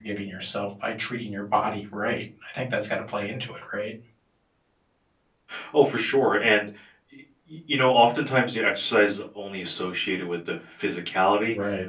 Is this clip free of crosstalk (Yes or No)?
Yes